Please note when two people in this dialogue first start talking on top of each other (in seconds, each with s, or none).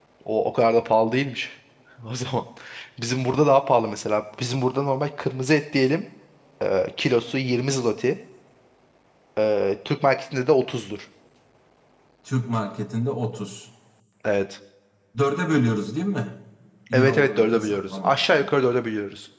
16.9 s